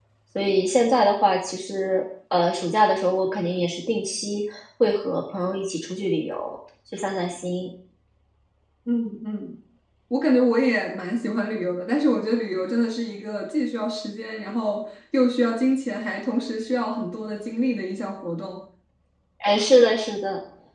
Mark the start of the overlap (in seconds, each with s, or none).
none